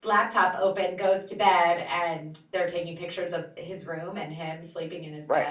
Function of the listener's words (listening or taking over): taking over